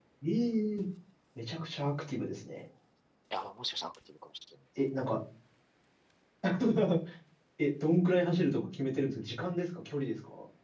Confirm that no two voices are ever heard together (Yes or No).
Yes